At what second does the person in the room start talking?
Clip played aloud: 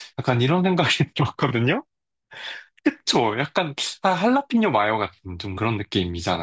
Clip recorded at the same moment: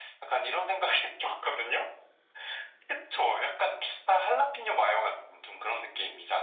none

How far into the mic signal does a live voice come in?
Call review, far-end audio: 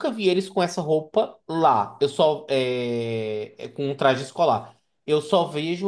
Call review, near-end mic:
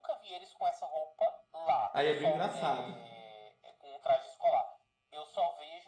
1.9 s

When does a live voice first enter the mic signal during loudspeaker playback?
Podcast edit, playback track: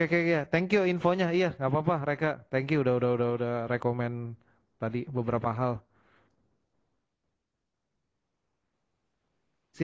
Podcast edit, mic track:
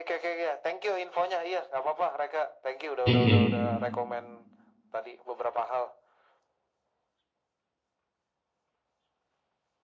3.0 s

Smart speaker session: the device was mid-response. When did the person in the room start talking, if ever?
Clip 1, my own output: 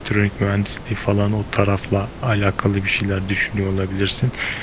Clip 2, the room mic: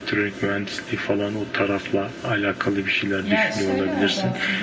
3.2 s

